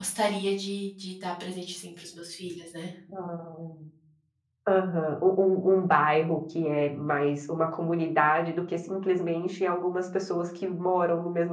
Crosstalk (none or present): none